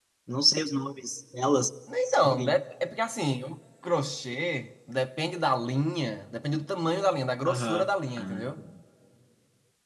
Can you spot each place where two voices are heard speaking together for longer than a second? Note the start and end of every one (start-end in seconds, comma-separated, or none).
none